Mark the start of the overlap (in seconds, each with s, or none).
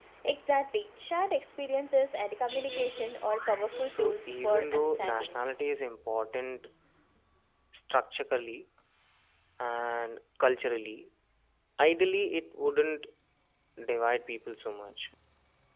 3.8 s